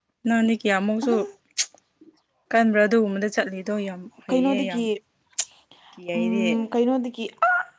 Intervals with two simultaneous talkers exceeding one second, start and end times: none

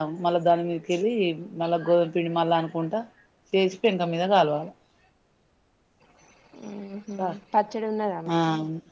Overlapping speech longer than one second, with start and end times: none

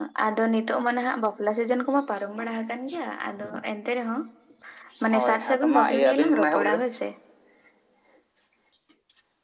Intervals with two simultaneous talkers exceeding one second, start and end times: 5.1-6.8

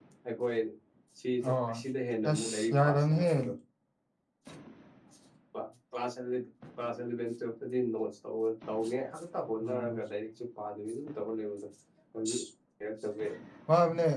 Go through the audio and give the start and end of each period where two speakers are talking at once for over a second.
2.2-3.5

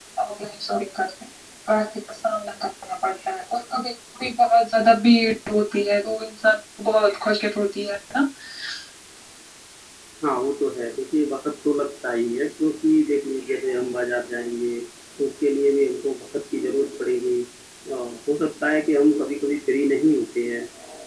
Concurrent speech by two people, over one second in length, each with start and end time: none

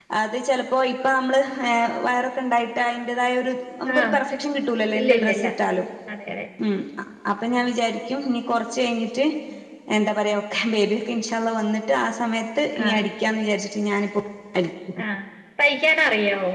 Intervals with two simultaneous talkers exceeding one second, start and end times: none

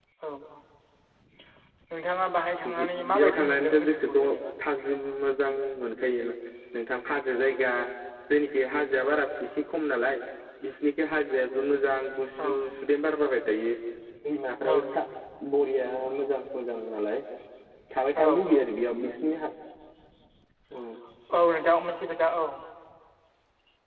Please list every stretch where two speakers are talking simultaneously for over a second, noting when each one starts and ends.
2.7-4.2

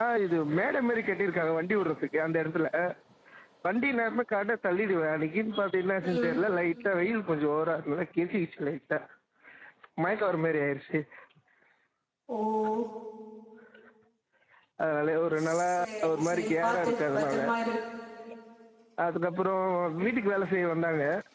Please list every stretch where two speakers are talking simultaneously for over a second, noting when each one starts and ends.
16.1-17.4

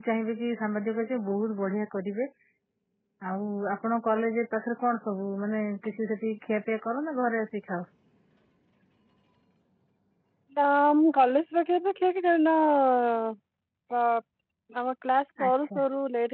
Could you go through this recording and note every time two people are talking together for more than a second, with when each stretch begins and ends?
none

